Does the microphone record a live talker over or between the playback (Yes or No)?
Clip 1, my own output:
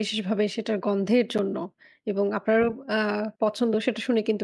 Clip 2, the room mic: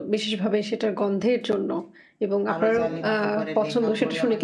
Yes